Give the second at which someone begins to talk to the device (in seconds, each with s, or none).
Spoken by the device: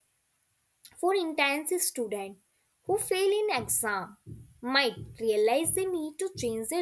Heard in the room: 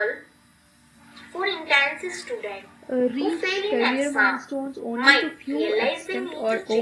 2.9 s